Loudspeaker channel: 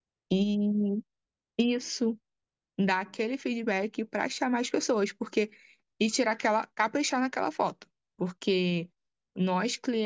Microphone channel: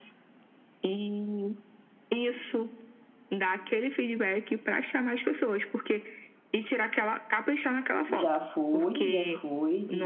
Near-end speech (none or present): present